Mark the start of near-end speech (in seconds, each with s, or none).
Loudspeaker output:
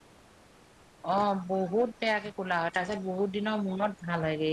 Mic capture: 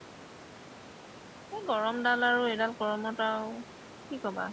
1.5 s